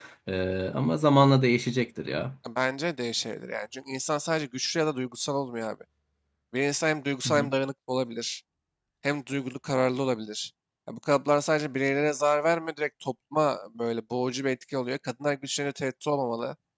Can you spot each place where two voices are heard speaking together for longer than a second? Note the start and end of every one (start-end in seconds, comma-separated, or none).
none